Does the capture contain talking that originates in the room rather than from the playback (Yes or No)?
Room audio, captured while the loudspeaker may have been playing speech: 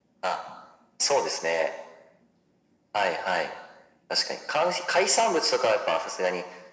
No